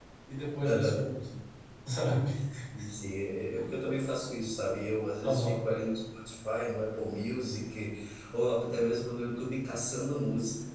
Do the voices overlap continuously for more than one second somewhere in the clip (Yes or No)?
No